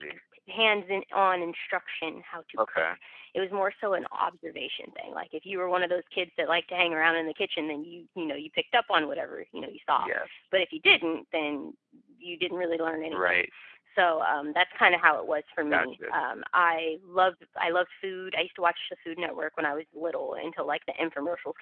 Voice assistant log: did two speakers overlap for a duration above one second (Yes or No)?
No